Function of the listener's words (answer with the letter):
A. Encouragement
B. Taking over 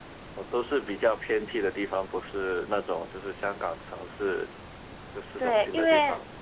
B